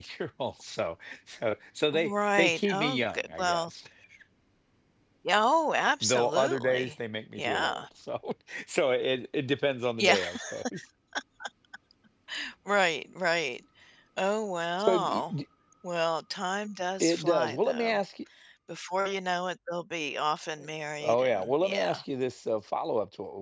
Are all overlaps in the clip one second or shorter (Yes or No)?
No